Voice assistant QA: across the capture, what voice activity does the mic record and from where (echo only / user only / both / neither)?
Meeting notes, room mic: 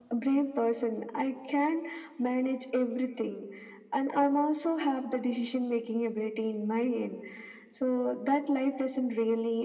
echo only